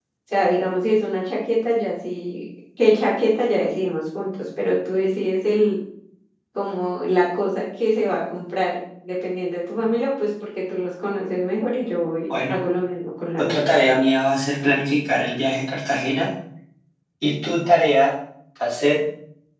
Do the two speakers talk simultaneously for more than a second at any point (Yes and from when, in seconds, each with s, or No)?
No